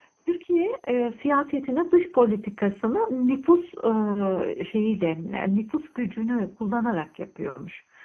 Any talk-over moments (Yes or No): No